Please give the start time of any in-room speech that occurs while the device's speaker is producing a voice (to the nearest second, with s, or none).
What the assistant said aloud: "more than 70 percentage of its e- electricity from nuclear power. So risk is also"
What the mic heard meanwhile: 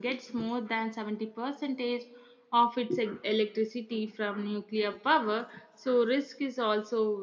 none